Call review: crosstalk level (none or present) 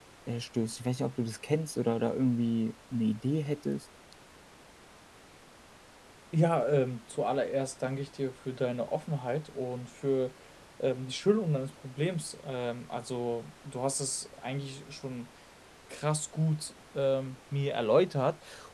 none